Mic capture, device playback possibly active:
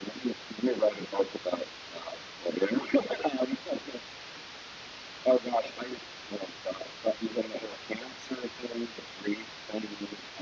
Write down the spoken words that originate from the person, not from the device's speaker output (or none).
none